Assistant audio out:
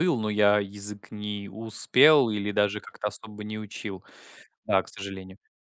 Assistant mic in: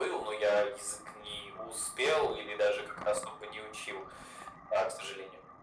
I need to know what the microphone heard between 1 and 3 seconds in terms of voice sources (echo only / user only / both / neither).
echo only